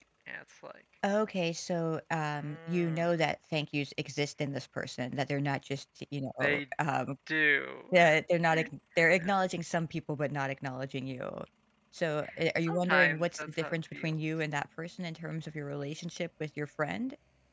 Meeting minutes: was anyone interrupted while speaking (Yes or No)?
Yes